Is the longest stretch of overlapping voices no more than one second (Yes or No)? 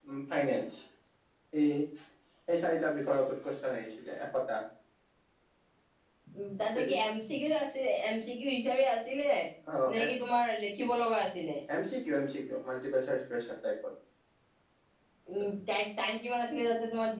Yes